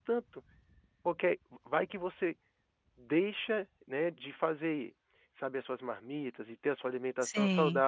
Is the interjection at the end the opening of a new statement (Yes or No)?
No